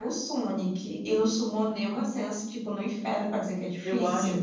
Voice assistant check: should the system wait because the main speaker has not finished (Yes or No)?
No